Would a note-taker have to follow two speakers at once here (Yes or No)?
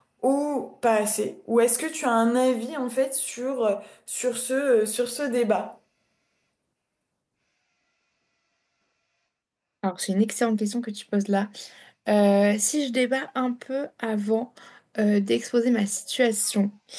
No